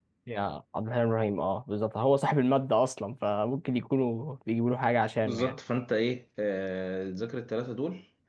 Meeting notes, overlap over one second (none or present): none